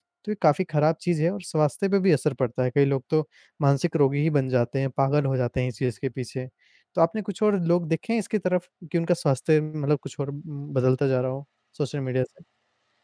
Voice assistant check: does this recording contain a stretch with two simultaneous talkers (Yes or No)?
No